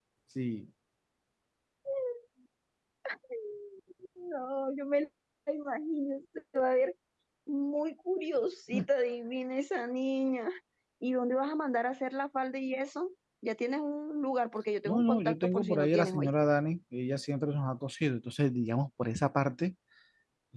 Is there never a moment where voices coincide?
No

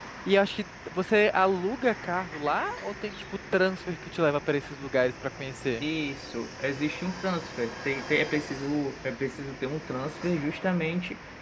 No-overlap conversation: Yes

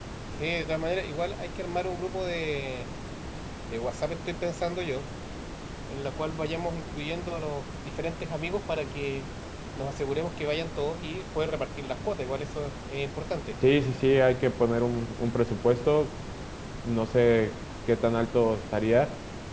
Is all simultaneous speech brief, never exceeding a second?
Yes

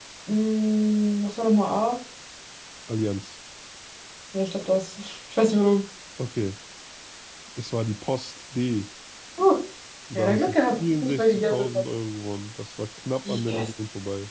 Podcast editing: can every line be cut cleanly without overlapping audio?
No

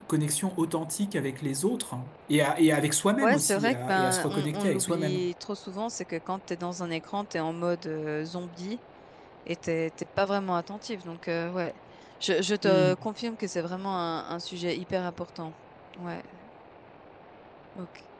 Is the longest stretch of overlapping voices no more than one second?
No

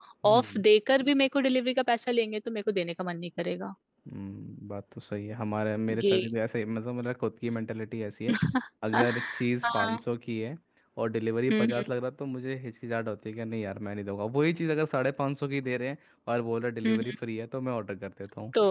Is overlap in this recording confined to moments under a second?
Yes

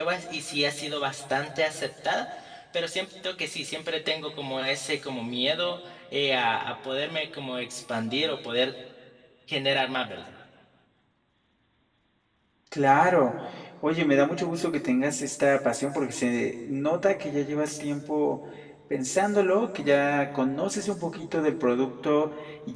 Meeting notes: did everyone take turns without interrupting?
Yes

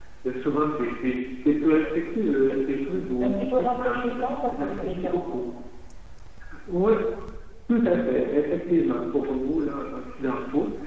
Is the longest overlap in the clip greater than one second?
Yes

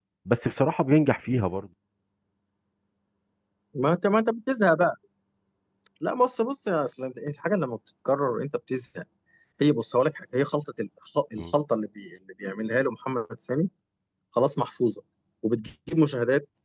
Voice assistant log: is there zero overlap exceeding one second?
Yes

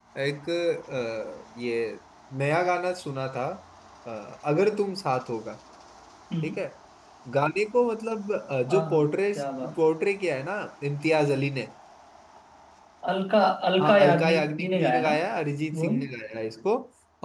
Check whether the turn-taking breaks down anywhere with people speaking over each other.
Yes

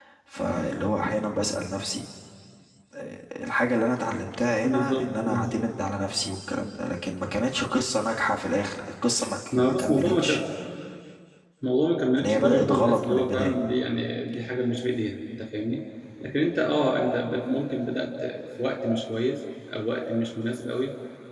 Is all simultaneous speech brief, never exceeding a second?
No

